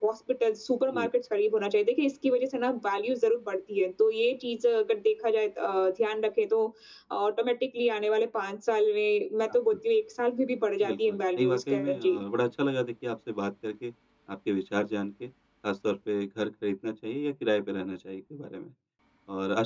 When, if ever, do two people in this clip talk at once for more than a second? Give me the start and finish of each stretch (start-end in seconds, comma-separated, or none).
10.9-12.2